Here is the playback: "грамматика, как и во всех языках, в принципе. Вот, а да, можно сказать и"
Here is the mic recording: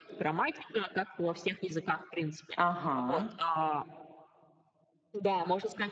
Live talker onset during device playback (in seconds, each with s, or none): 2.6 s